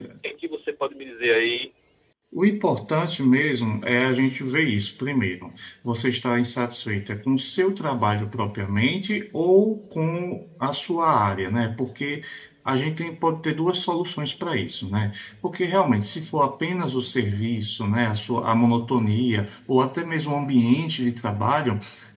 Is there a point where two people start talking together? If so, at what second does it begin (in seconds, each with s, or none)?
none